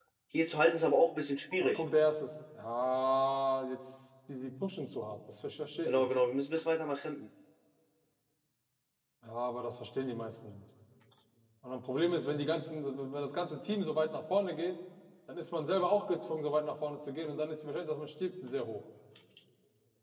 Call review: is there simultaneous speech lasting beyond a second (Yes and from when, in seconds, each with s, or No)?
No